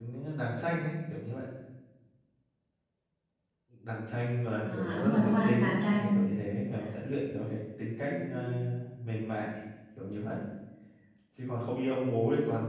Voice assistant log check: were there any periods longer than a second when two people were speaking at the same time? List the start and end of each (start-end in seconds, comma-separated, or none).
4.7-6.2